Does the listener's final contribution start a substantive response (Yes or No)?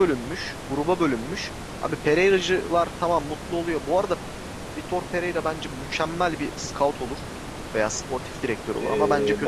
Yes